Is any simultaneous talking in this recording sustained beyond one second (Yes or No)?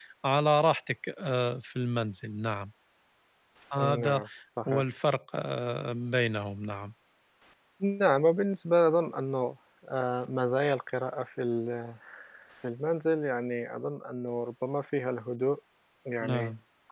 No